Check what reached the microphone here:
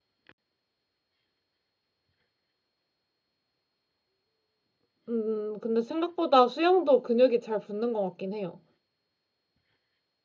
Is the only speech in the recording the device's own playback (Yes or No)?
No